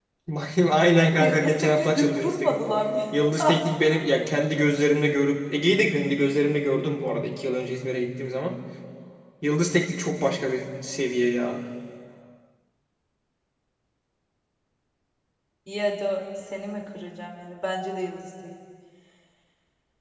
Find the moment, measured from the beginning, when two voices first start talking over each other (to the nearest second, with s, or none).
1 s